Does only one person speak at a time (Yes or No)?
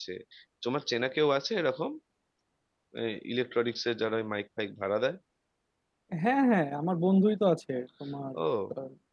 Yes